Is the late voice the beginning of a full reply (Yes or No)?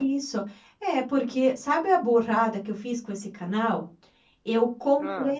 No